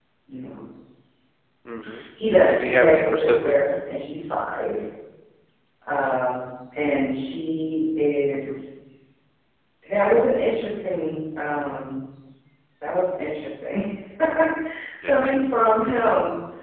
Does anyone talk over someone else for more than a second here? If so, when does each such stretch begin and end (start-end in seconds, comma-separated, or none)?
2.5-3.7